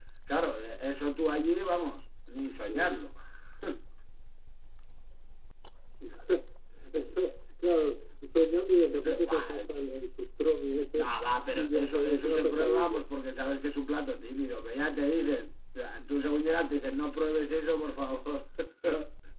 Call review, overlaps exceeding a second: present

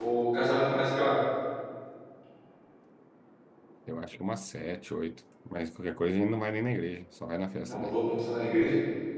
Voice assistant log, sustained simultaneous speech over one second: none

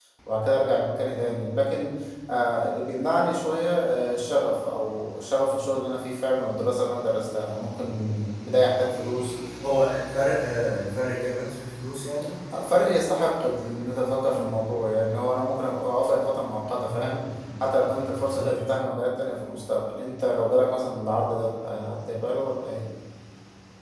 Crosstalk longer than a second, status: none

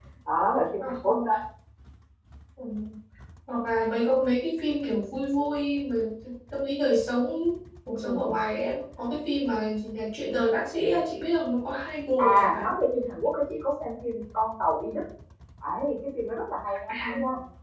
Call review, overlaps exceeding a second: none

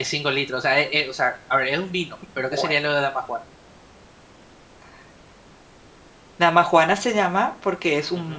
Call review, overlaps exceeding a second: none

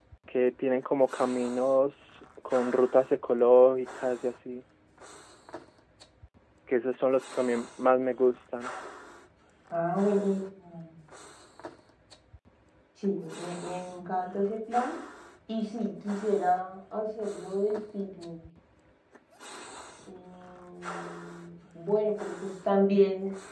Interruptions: none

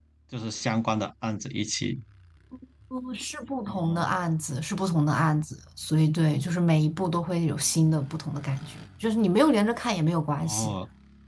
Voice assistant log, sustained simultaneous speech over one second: none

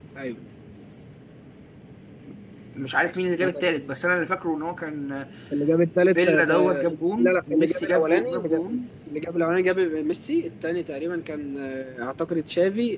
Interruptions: present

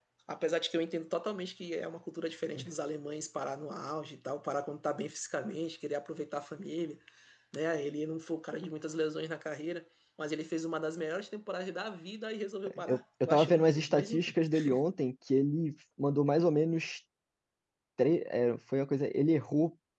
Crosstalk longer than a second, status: present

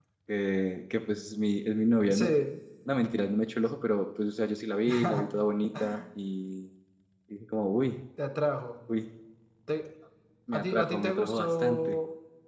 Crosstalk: present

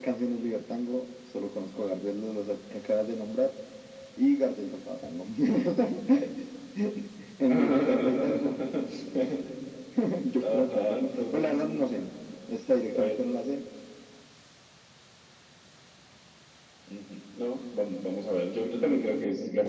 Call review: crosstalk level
present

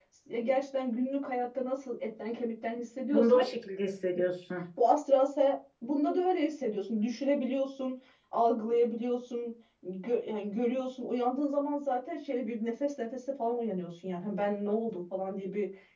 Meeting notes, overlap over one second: none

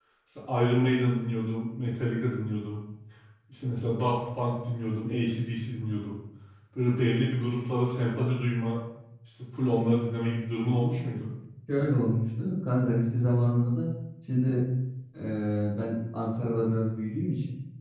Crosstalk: none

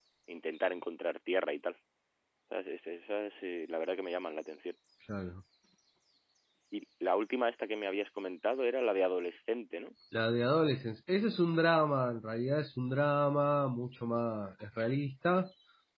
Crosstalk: none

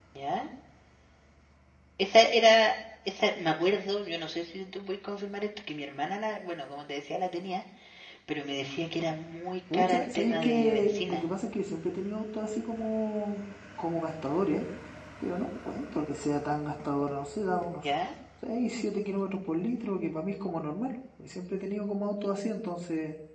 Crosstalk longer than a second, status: present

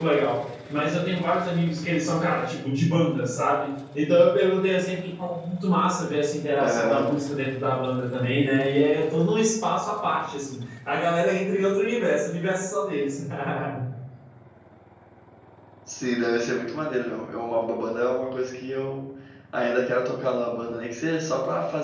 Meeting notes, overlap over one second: none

